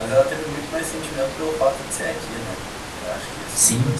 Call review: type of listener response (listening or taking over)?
taking over